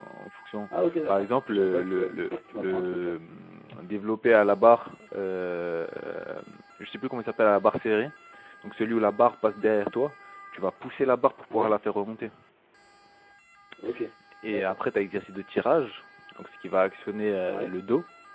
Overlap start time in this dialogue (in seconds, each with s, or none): 1.1 s